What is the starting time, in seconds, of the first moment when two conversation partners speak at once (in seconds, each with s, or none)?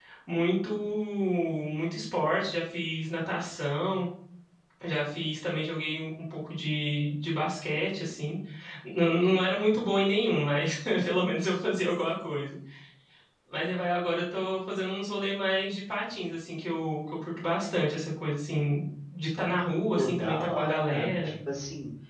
19.9 s